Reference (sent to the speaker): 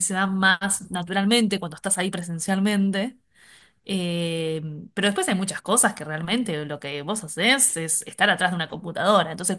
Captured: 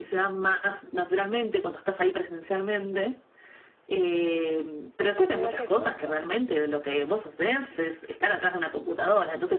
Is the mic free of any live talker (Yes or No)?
No